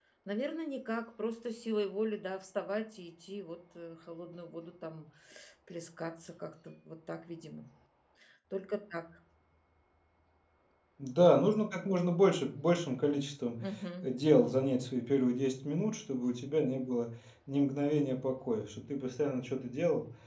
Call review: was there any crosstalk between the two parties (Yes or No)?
No